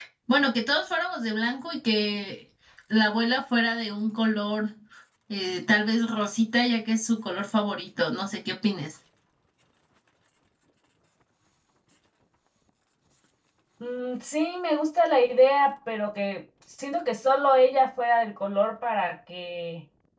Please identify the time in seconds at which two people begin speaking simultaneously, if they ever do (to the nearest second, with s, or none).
none